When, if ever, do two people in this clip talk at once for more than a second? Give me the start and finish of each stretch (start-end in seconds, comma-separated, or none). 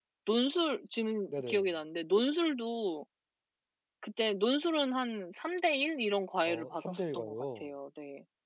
6.5-7.7